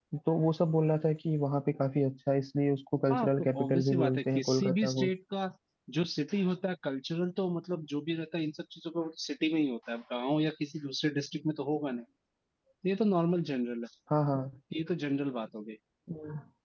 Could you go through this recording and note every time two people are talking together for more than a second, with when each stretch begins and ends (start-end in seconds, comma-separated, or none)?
3.1-5.1